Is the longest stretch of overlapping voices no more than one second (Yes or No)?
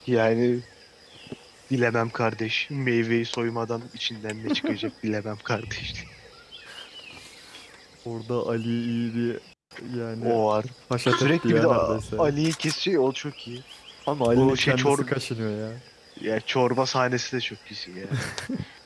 No